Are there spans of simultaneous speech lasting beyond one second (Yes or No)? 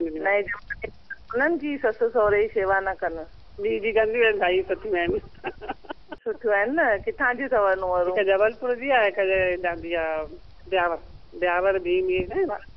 No